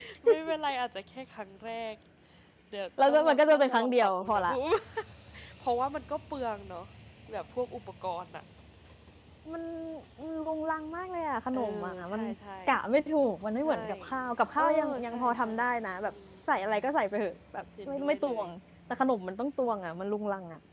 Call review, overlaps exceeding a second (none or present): present